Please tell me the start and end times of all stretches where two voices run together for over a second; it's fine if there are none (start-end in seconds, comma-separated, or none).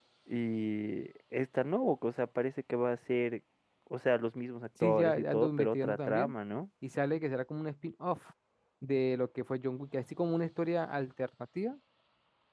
4.8-6.3